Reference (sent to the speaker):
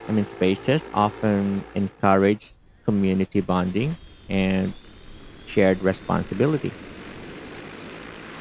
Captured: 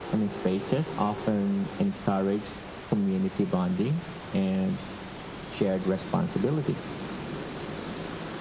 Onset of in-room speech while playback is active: none

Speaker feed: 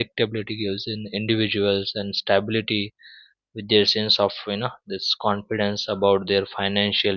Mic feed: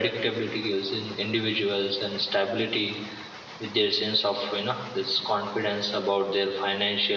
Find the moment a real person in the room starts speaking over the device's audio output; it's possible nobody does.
none

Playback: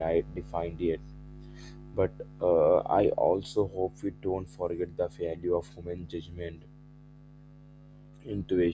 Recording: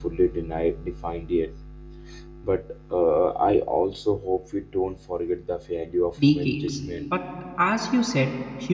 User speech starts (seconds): 6.2 s

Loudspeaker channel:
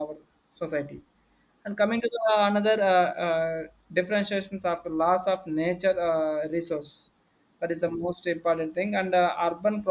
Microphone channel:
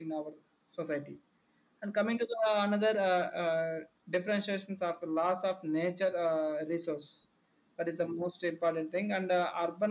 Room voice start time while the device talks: none

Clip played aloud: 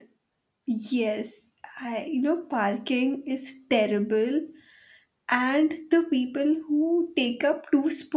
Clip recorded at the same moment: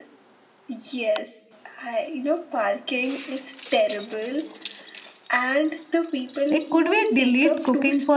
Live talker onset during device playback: 6.5 s

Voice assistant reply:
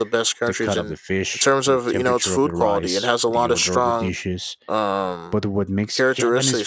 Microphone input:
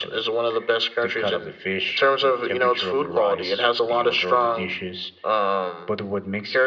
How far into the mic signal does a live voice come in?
none

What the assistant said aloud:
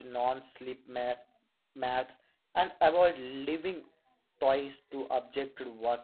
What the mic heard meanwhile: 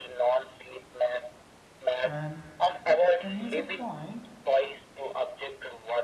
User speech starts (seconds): 2.0 s

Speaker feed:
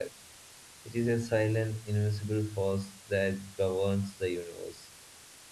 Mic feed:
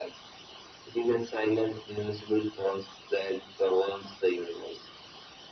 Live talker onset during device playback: none

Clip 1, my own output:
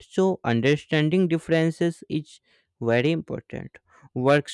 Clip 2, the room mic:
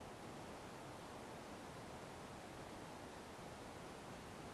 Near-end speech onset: none

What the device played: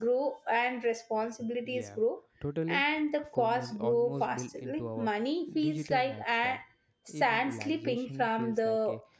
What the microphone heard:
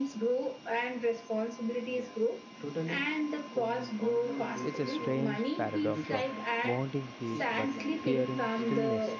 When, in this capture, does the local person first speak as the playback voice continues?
4.6 s

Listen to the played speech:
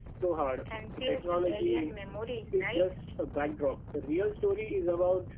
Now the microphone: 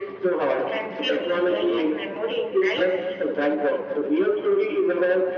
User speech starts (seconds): none

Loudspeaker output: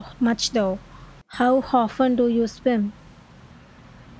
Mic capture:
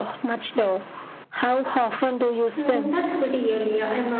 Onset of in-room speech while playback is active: 2.6 s

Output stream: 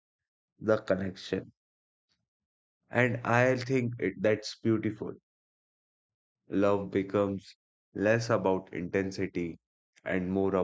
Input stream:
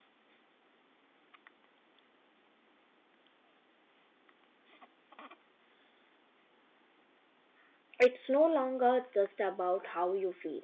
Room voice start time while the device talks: 8.0 s

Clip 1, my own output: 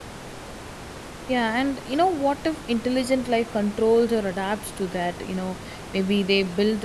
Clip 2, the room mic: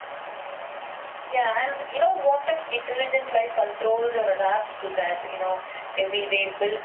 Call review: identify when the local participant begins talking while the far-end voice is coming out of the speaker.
none

